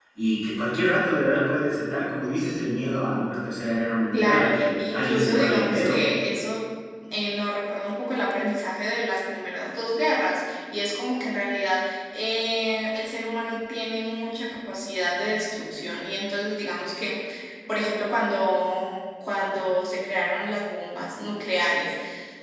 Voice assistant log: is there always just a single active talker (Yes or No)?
No